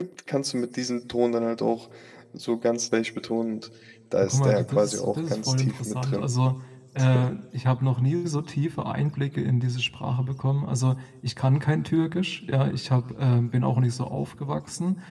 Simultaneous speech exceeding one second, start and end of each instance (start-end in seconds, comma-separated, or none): 4.2-6.3